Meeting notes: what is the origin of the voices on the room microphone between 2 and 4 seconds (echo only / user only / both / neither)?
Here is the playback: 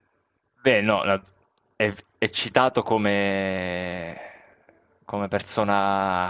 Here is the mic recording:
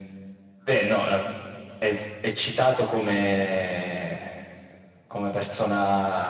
echo only